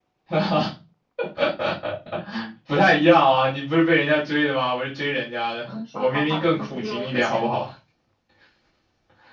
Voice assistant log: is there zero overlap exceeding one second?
No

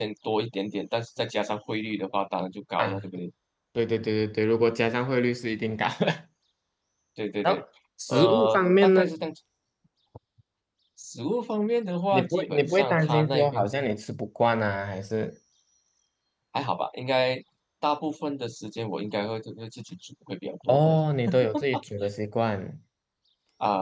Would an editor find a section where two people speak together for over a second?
Yes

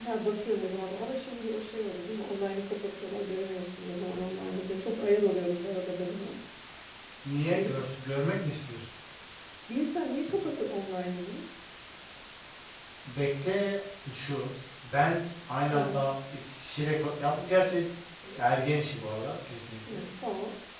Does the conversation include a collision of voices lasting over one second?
No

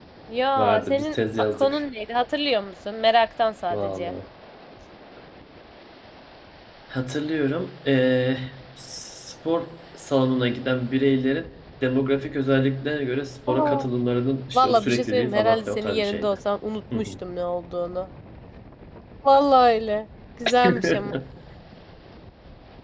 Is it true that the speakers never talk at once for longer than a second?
No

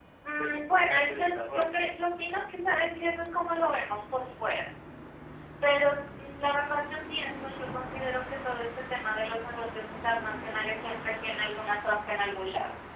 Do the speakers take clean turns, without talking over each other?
No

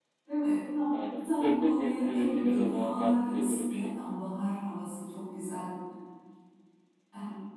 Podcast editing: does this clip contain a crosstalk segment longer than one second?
Yes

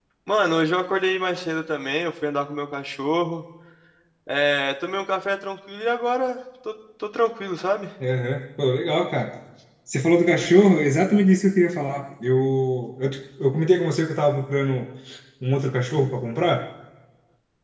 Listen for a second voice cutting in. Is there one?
No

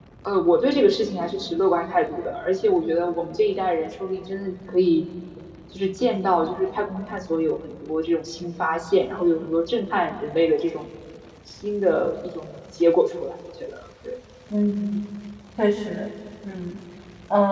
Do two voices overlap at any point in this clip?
No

